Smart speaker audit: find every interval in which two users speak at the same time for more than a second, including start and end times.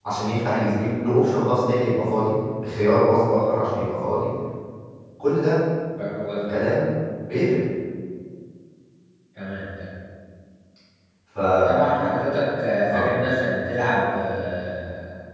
none

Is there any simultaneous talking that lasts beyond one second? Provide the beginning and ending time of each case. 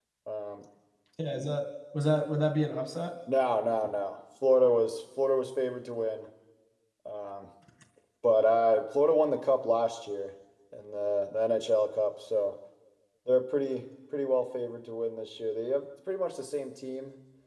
none

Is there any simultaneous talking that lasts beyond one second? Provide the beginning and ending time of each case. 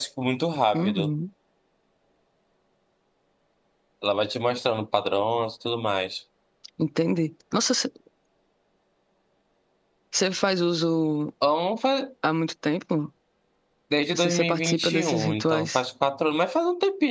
14.1-15.8

